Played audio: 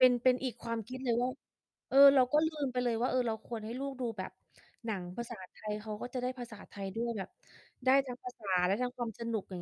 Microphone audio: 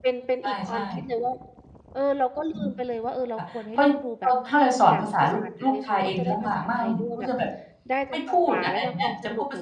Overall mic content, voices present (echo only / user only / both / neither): both